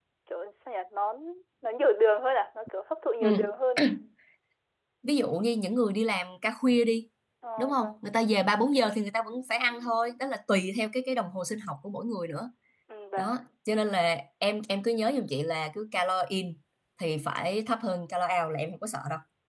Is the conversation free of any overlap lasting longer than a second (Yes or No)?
Yes